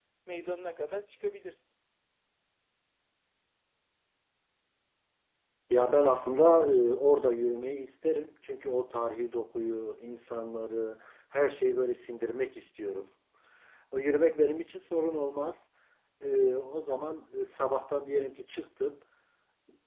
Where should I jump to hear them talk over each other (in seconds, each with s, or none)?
none